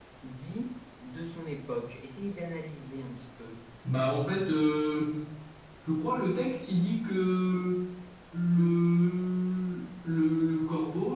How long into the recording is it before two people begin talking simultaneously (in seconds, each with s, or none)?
none